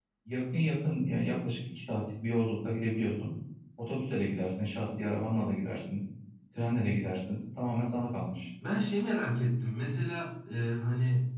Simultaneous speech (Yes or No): No